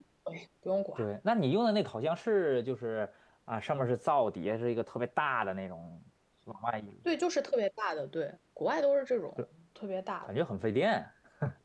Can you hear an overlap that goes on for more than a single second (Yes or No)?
No